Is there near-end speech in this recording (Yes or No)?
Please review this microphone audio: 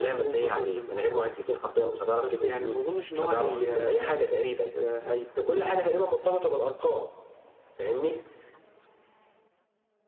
No